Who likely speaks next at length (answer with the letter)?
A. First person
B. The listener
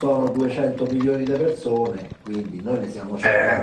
A